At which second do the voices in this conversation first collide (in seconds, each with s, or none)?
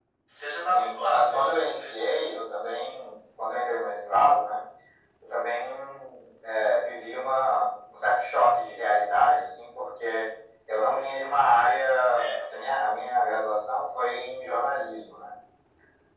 0.6 s